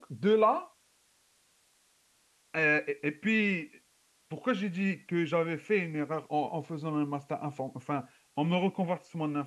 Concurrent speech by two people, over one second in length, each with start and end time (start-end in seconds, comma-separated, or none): none